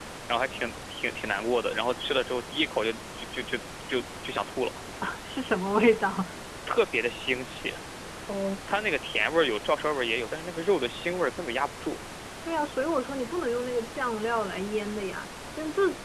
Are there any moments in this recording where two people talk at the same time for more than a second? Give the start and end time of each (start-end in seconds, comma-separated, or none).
none